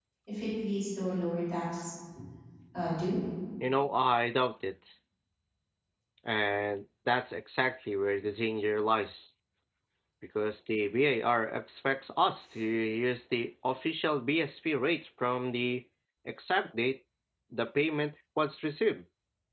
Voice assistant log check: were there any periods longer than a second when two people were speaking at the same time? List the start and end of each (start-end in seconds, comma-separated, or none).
none